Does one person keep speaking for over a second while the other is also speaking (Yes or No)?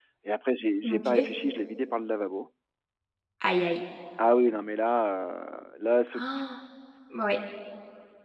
No